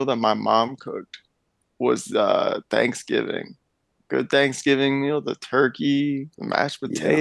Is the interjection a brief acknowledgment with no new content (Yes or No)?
Yes